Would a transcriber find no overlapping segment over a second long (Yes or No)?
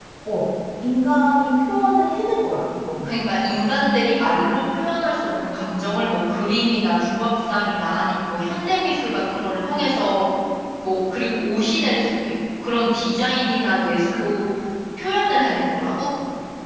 Yes